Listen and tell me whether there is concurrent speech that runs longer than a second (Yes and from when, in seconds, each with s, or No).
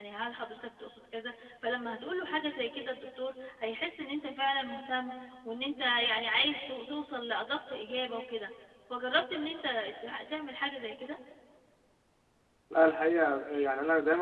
No